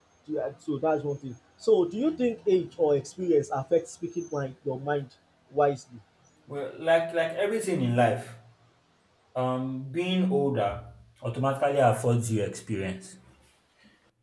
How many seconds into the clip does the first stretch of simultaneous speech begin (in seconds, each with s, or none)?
none